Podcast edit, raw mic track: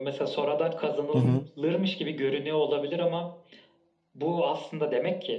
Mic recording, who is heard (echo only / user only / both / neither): both